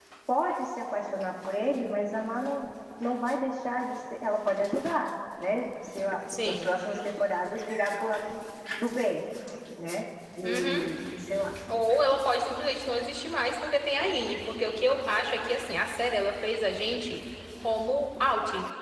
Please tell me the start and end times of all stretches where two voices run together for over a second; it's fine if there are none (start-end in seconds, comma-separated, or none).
none